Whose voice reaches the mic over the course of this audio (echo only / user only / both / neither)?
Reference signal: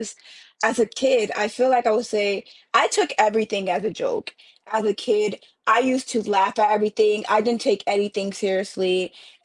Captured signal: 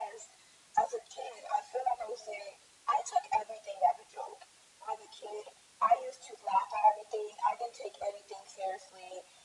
echo only